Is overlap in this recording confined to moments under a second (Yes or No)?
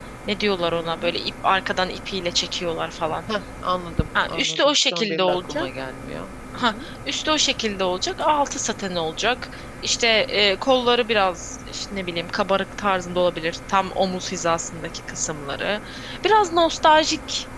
No